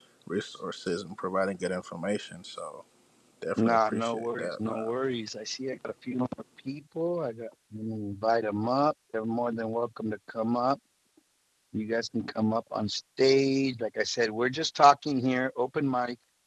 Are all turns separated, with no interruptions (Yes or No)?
No